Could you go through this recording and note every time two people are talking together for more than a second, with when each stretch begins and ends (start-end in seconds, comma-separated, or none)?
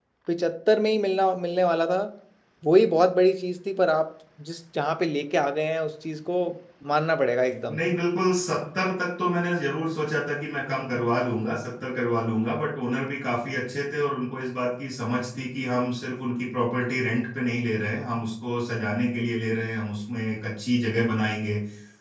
none